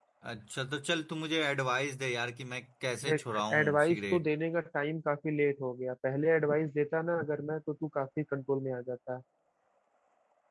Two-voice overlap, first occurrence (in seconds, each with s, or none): 3.0 s